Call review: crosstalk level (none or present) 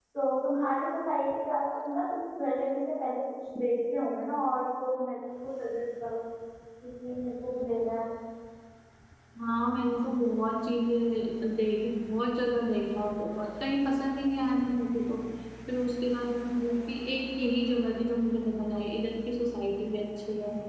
none